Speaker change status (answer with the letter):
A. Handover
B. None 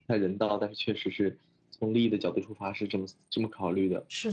A